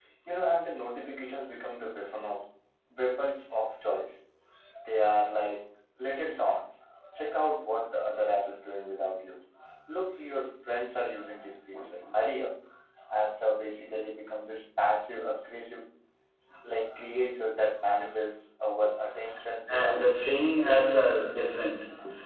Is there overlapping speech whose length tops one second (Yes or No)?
Yes